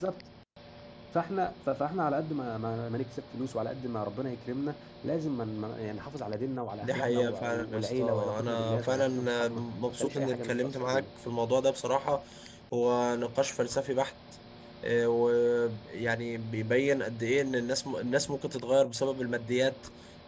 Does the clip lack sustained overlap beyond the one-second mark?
No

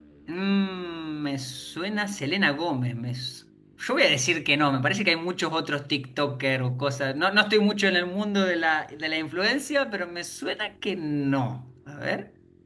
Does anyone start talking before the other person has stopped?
No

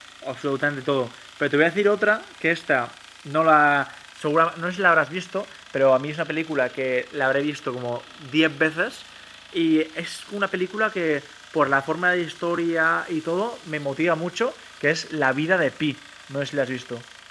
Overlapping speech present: No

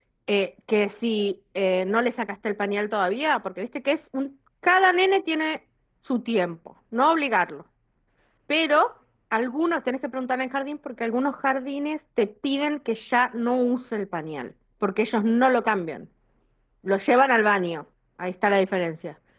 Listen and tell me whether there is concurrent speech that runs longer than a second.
No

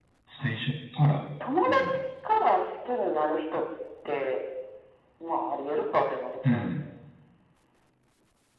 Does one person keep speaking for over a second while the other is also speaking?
No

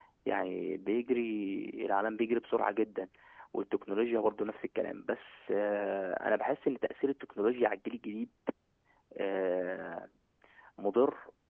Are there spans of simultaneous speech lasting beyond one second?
No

